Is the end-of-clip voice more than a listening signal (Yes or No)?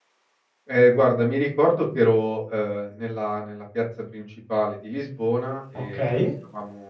No